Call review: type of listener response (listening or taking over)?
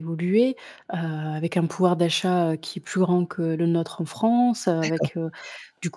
listening